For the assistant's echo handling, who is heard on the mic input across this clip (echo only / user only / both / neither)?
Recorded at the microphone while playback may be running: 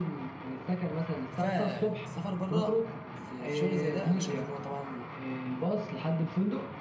both